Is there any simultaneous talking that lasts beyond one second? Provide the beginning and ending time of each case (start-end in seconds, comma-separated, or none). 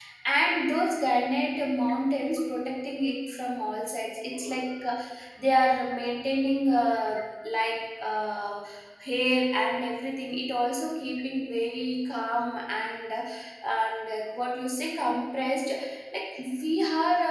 none